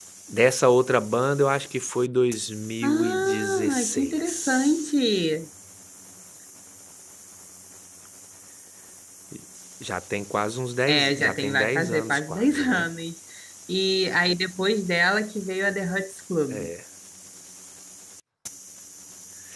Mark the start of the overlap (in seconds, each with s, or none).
2.8 s